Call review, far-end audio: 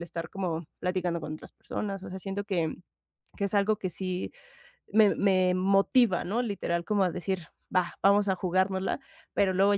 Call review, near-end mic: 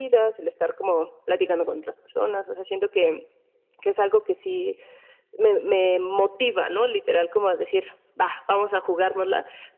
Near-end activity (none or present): none